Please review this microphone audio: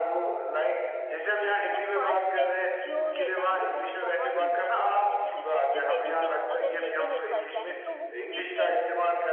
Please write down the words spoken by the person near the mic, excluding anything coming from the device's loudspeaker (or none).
हुँ, मतलब फर्स्ट स्टेप जो रहता है ना वो बहुत ही मुश्किल होता है। जैसे कि जो बेबी स्टेप अगर लेते हैं फर्स्ट टाइम तो वो गिरते हैं।